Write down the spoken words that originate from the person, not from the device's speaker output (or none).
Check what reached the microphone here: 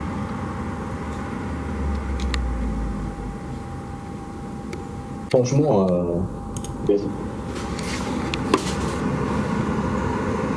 Franchement, euh, Vas-y.